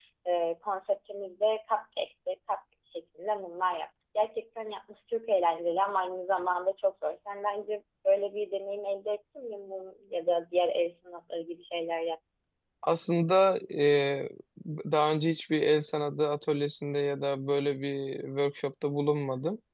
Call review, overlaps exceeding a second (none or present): none